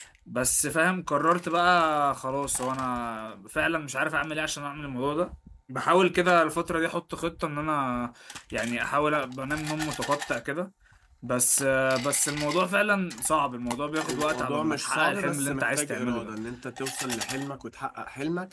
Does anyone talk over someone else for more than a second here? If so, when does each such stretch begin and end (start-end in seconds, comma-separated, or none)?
14.1-16.3